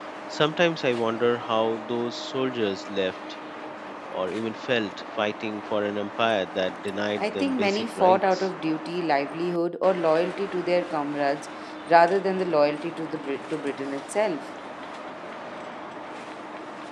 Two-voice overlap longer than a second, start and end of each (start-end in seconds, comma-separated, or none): 7.2-8.5